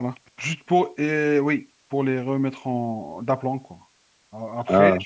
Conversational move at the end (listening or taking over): listening